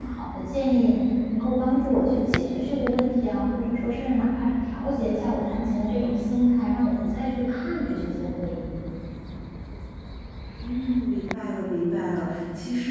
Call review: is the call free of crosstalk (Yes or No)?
Yes